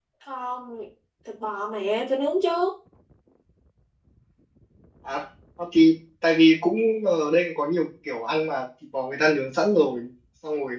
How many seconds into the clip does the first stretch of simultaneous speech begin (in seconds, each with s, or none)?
none